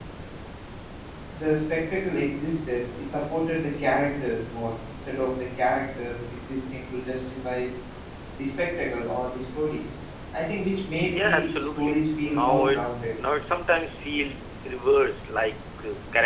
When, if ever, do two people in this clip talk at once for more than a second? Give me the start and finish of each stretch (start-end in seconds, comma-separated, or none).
11.0-12.8